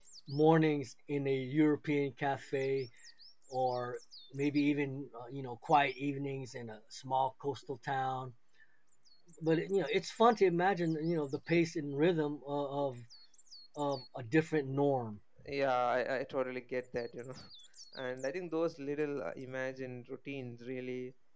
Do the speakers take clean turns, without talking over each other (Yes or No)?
Yes